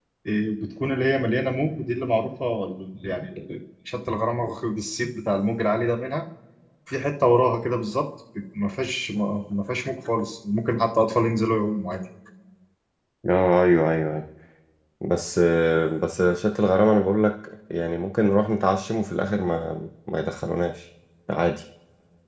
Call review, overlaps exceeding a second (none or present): none